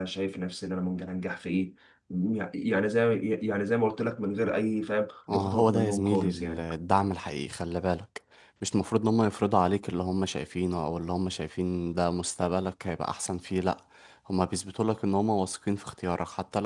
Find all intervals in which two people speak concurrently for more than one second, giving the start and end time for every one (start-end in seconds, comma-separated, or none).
5.3-6.6